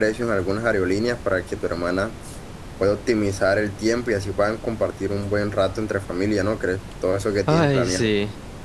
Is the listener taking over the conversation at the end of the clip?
Yes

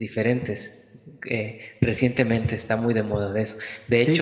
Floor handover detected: No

